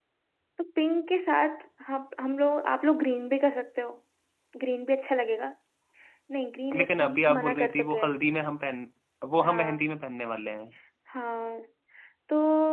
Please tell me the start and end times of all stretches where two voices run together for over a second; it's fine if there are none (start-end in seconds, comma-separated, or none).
6.8-8.2